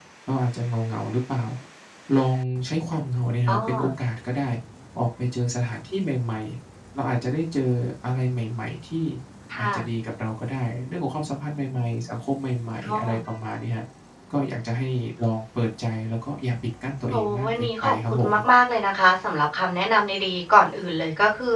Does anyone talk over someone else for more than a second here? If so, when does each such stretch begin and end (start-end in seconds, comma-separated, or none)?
17.1-18.4